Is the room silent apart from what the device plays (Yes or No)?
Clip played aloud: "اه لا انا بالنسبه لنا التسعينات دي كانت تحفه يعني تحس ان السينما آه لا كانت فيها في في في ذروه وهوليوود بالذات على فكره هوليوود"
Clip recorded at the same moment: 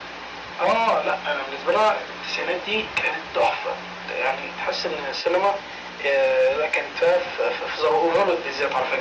Yes